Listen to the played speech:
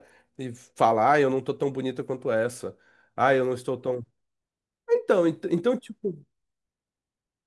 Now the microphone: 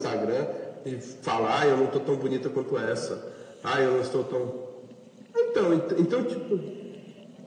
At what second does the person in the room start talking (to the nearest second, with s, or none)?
none